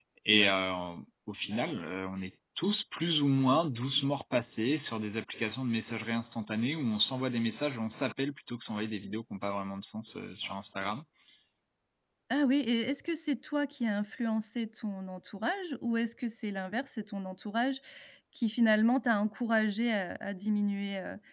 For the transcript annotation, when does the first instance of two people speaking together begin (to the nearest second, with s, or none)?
none